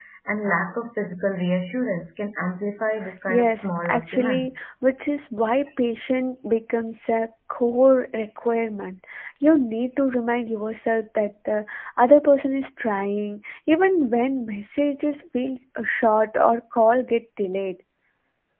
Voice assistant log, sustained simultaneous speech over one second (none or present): present